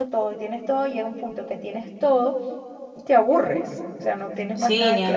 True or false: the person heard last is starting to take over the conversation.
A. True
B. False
A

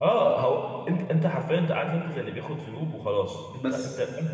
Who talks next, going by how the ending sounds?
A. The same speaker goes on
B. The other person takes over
A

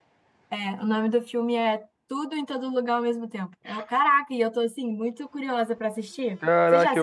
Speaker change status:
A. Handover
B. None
A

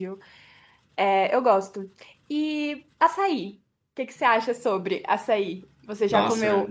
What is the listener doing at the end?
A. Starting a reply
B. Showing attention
A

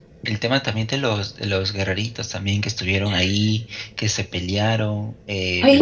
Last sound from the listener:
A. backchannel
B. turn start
B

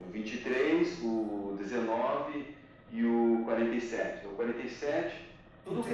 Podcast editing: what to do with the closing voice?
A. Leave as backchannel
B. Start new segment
B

